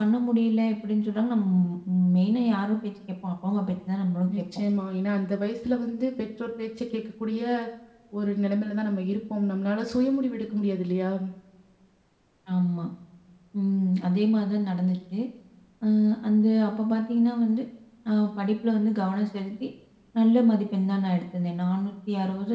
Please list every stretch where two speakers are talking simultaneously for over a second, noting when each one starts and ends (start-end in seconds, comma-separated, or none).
none